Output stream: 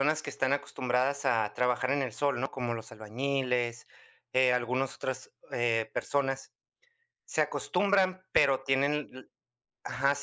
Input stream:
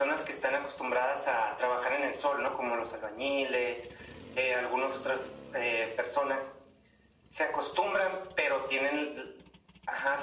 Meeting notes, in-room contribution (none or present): none